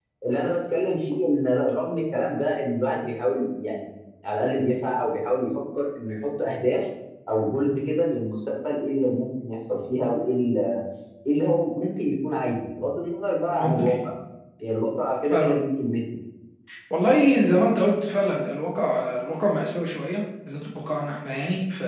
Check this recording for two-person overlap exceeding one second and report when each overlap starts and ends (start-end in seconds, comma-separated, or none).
none